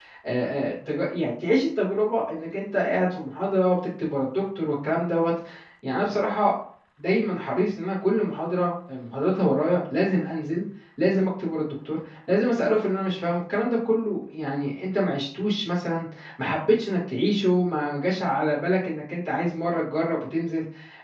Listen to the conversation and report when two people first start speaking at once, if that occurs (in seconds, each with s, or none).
none